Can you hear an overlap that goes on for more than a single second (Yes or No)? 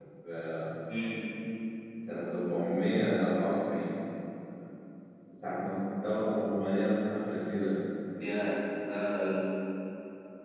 No